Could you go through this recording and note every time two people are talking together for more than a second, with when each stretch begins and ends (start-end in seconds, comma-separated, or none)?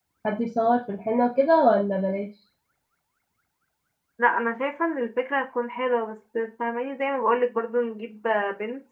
none